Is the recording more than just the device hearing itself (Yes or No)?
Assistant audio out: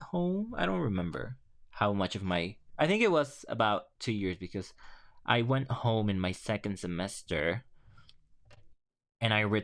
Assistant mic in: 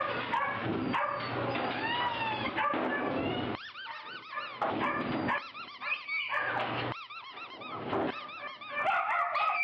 No